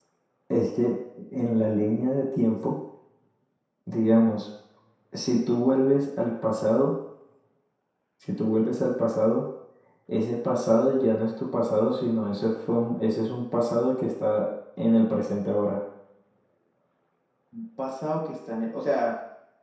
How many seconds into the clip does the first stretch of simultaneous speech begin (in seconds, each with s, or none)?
none